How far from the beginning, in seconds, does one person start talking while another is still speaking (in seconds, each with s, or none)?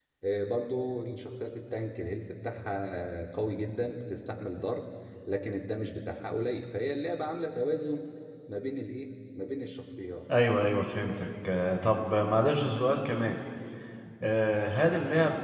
none